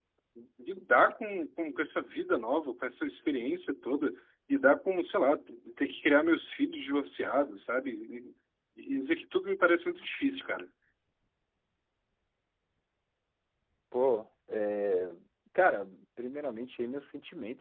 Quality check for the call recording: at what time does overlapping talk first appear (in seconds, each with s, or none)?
none